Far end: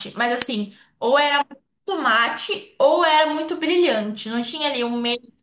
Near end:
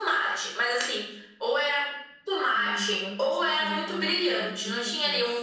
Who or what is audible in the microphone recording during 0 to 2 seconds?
echo only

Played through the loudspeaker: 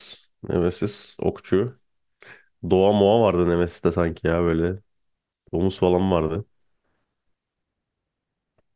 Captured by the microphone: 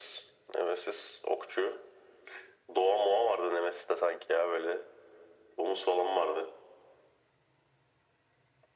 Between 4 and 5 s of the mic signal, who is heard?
echo only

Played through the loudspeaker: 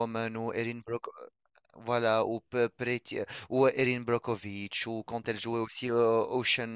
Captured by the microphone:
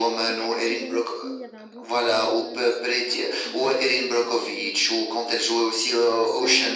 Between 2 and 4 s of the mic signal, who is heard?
both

